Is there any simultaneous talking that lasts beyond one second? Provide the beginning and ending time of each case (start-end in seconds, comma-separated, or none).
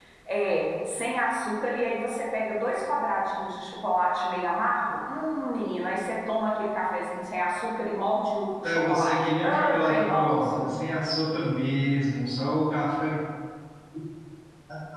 8.6-10.7